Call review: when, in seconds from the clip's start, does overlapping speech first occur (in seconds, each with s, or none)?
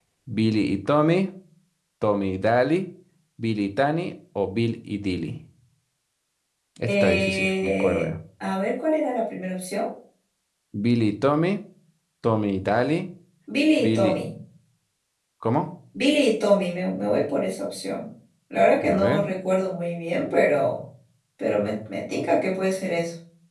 6.8 s